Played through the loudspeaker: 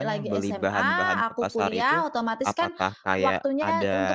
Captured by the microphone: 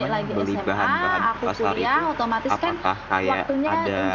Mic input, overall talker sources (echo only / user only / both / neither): echo only